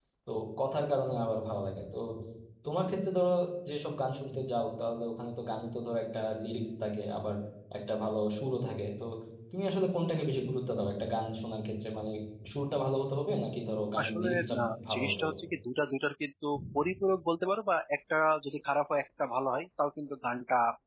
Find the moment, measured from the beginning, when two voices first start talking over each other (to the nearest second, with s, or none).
14 s